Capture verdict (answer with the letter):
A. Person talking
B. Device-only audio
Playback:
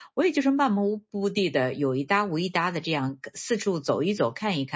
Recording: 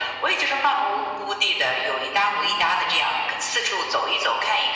B